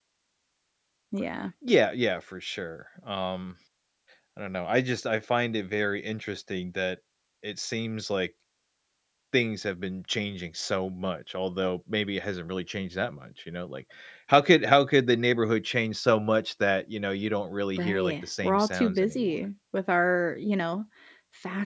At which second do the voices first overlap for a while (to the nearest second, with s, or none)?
18 s